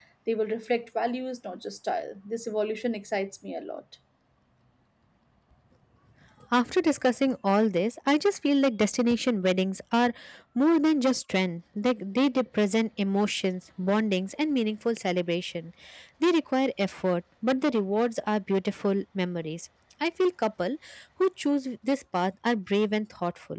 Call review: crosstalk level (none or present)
none